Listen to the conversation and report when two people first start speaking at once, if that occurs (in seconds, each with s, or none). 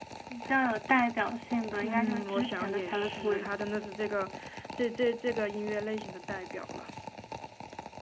1.8 s